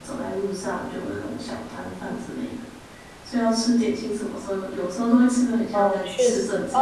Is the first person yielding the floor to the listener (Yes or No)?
Yes